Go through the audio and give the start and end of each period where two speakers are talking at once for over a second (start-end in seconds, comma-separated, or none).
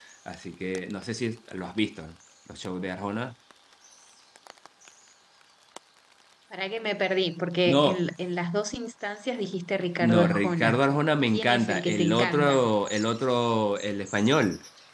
10.0-12.7